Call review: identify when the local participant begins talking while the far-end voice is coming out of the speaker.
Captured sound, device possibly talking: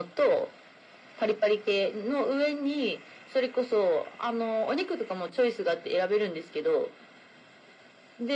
none

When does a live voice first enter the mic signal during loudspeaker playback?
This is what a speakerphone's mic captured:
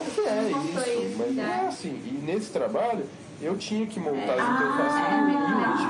4.4 s

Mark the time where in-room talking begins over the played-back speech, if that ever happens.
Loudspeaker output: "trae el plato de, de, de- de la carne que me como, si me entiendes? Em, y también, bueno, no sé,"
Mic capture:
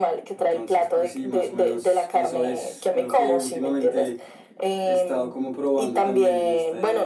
0.3 s

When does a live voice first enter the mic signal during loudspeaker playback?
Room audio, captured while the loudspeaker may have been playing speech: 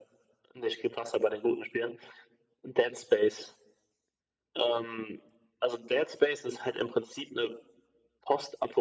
none

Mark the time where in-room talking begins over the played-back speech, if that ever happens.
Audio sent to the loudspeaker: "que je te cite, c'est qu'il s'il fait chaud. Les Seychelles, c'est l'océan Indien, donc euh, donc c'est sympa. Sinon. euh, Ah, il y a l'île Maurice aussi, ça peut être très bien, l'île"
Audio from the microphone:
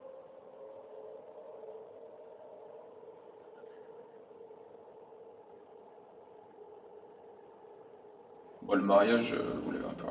8.6 s

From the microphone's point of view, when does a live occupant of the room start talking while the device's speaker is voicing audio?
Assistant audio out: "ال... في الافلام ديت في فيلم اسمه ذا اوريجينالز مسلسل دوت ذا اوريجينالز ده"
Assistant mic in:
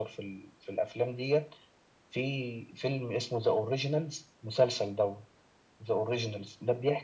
none

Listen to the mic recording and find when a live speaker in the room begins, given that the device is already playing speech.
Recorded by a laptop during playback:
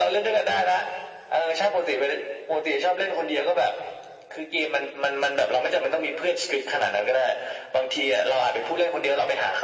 none

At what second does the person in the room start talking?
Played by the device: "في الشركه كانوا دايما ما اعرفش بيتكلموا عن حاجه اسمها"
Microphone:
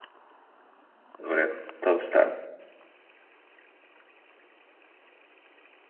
1.2 s

